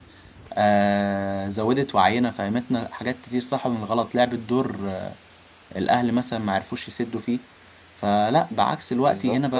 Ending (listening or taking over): listening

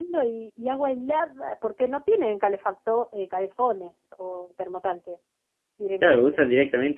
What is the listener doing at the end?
taking over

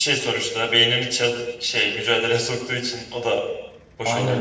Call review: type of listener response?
taking over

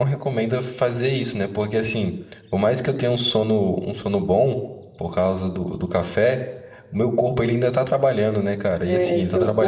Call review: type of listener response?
taking over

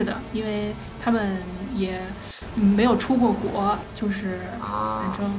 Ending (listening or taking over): taking over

